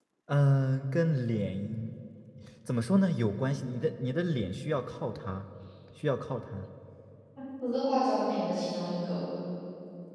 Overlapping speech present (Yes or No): No